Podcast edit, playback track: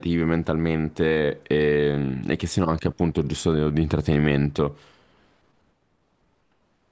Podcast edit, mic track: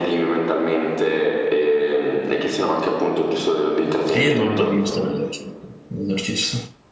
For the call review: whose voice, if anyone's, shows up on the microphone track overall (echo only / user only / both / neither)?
both